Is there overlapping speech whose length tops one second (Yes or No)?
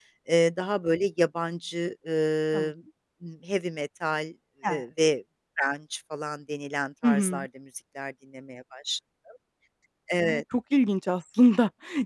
No